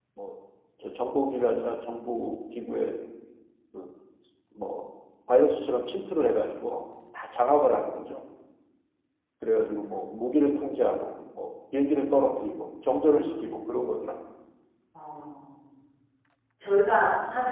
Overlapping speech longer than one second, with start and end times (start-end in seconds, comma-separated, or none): none